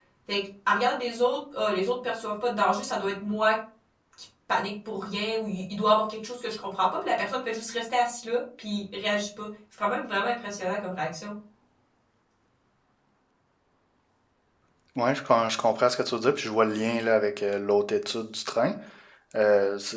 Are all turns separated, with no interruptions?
Yes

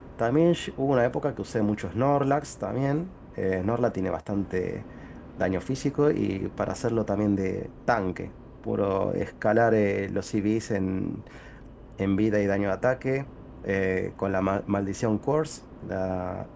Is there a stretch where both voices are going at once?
No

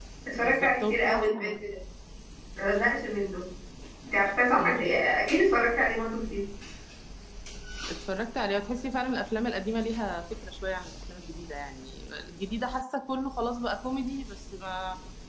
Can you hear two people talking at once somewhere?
Yes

